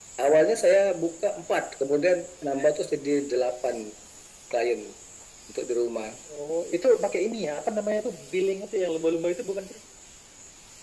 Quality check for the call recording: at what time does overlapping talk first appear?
none

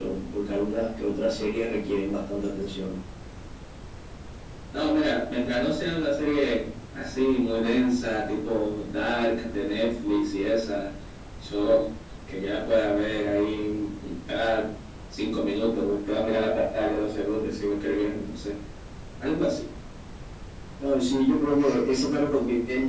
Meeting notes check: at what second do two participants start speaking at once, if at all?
none

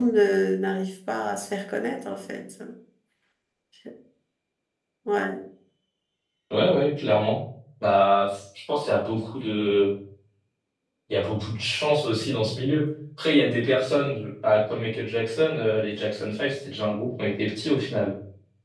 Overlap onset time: none

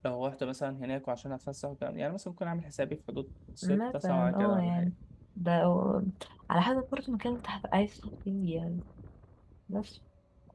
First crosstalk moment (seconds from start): 3.6 s

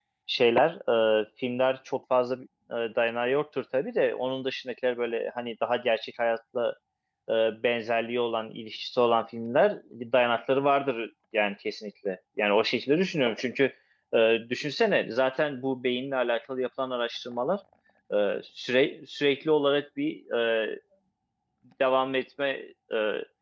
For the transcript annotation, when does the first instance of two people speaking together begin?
none

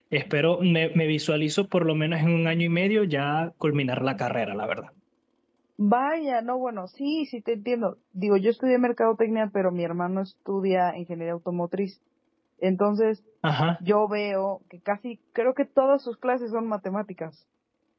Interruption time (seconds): none

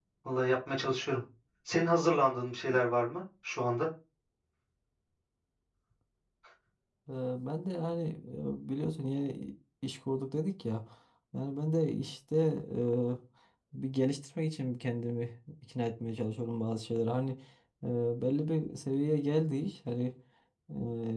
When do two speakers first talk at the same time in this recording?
none

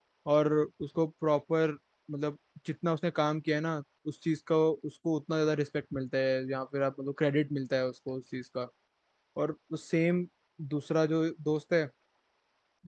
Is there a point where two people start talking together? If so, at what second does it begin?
none

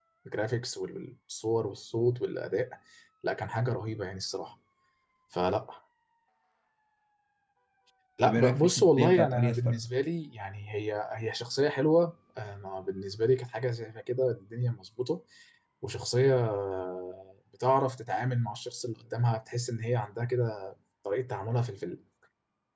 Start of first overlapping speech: 8.2 s

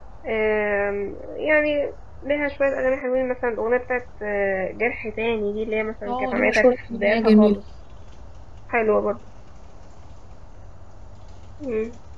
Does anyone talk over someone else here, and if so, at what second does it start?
6.1 s

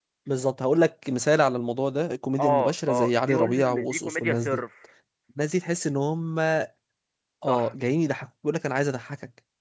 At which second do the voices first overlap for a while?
2.4 s

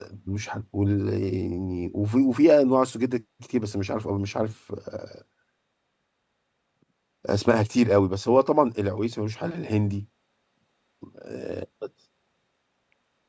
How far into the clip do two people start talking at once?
none

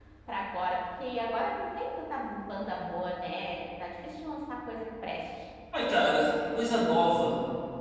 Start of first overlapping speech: none

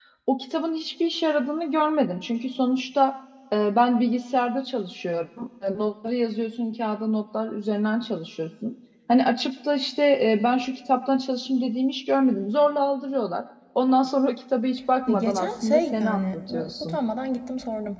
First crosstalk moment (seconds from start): 15.1 s

